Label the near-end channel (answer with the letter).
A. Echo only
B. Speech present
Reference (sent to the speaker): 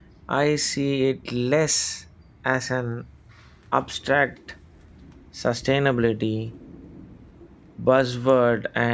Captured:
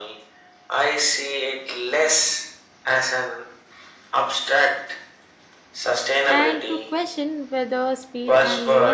B